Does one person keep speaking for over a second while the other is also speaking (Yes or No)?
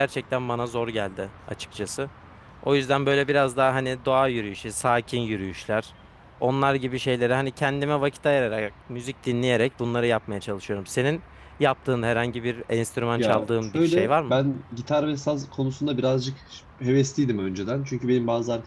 Yes